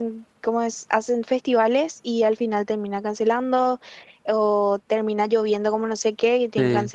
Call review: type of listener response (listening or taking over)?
listening